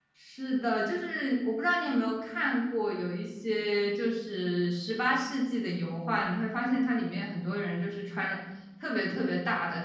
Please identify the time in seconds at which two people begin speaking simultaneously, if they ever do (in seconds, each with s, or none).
none